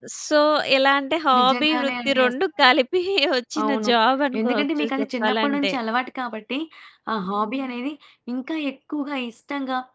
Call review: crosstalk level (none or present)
present